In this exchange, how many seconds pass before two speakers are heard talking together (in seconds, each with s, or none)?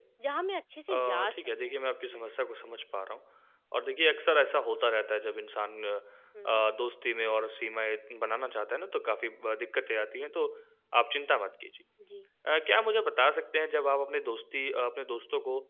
0.9 s